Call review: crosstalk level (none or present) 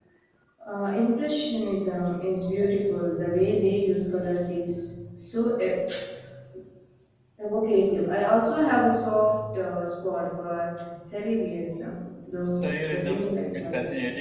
present